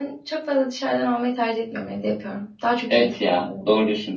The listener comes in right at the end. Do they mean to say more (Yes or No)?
Yes